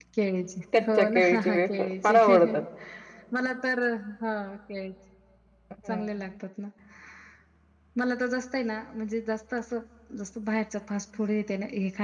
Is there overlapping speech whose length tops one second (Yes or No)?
Yes